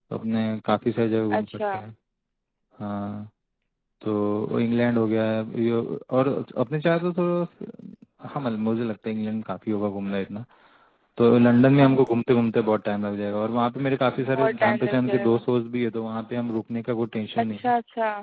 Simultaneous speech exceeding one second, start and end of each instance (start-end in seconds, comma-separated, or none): 14.2-15.4